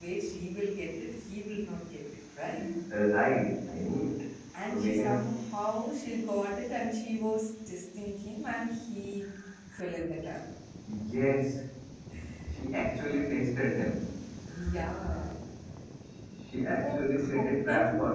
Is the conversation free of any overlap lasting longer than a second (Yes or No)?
No